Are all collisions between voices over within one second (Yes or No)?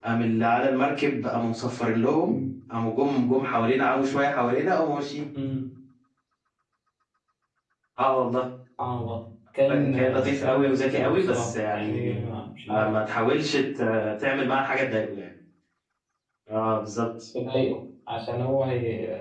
No